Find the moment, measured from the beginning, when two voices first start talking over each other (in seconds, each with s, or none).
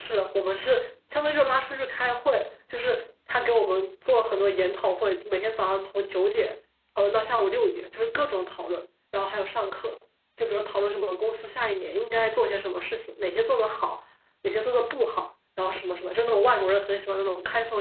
none